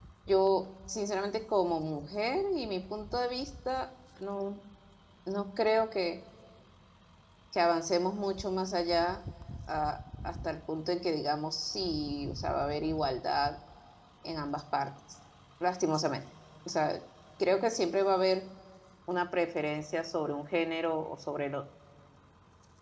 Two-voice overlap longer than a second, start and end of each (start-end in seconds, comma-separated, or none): none